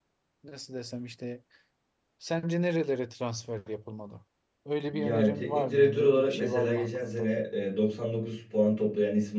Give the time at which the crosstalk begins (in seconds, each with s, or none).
4.9 s